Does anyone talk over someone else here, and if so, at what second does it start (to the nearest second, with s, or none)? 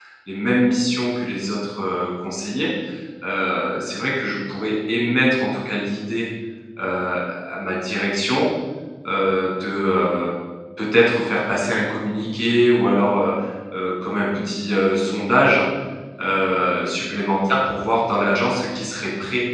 none